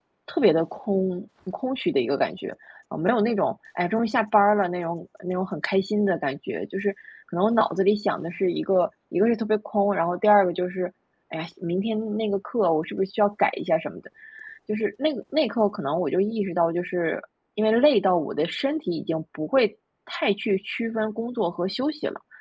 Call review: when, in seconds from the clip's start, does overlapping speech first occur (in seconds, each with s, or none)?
none